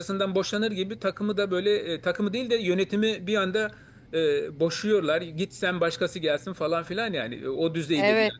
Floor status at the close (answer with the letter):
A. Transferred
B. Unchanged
A